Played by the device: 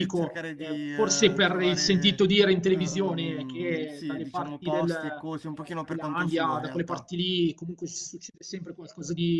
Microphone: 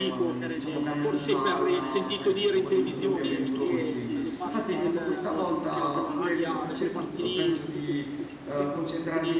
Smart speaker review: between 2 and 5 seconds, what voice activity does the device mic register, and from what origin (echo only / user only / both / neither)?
both